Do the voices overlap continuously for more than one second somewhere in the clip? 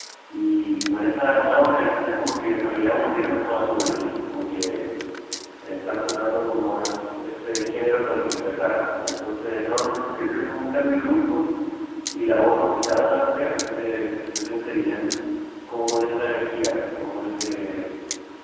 No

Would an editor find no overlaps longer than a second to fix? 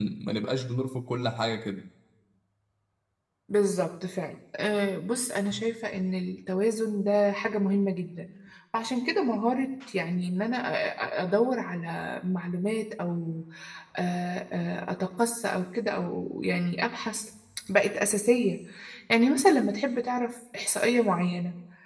Yes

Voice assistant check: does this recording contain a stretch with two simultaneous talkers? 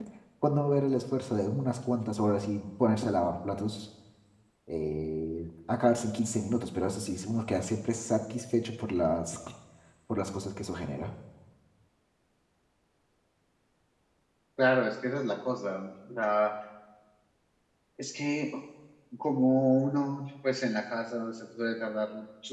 No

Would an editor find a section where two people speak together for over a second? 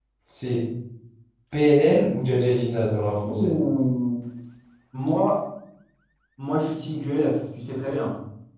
No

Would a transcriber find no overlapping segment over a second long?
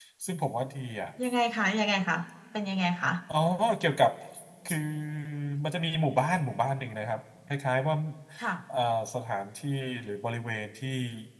Yes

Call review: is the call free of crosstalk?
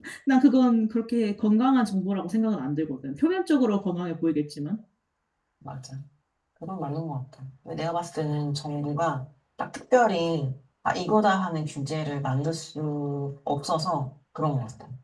Yes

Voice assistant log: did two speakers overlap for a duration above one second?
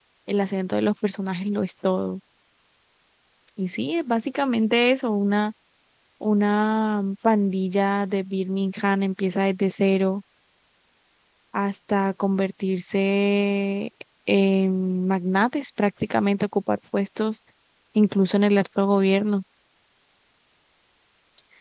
No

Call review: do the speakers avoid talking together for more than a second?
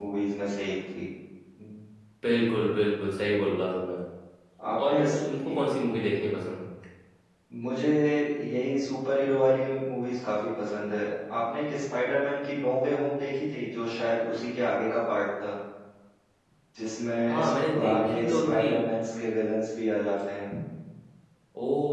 No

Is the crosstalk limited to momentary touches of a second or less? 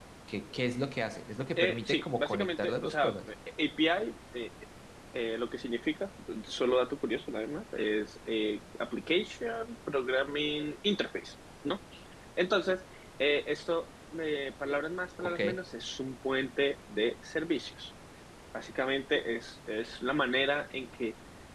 No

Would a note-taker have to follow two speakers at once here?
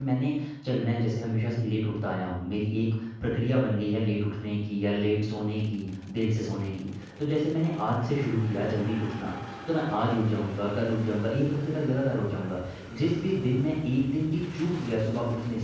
No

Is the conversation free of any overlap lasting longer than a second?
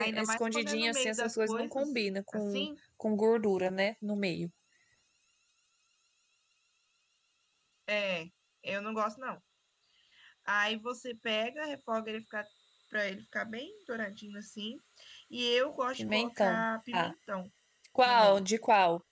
No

